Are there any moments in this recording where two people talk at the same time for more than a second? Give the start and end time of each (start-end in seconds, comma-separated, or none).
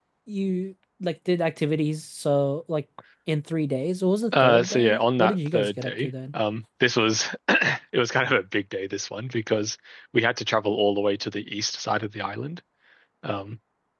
4.4-6.1